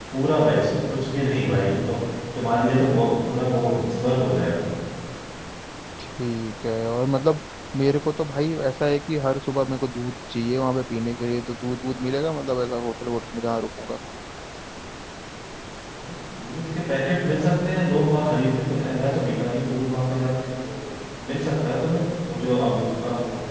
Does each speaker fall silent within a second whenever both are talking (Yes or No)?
Yes